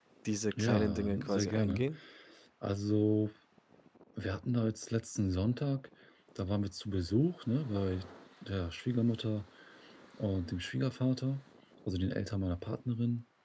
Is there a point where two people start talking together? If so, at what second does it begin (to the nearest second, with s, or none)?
1 s